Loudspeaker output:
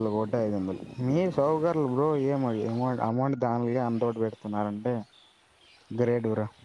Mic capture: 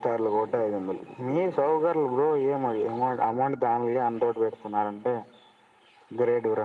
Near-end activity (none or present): none